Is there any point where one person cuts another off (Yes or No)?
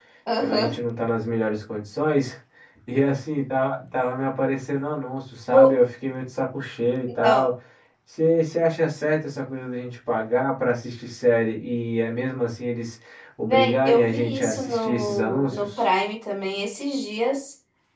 Yes